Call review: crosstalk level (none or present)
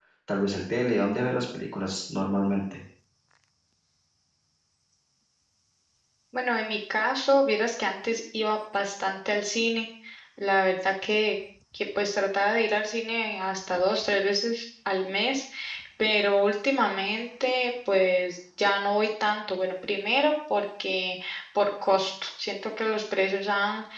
none